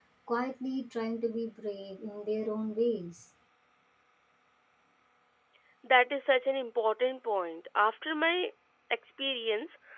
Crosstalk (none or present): none